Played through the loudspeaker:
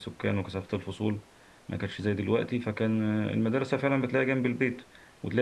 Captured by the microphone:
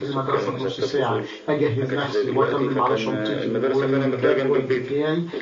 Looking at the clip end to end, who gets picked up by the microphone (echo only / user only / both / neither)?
both